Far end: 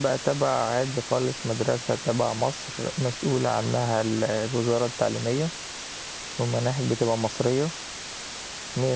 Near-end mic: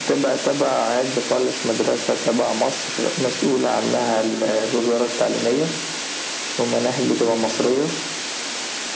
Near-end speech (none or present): none